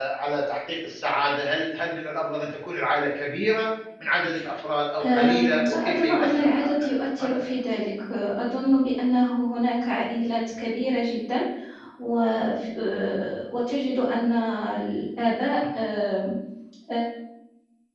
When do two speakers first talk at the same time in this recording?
5.0 s

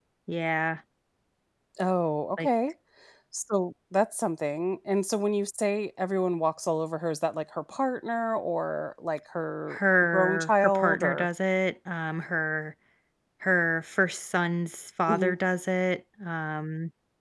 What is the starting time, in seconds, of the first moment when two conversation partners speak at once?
9.7 s

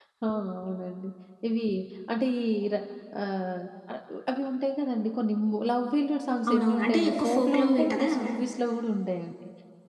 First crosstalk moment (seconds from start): 6.5 s

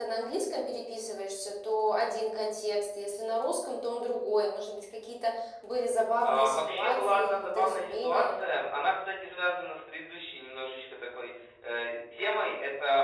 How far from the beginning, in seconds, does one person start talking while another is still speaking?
6.2 s

